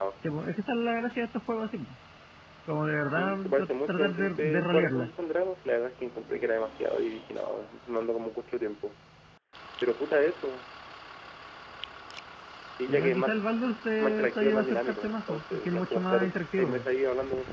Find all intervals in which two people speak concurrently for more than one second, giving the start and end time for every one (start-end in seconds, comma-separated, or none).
3.1-5.1, 14.0-16.9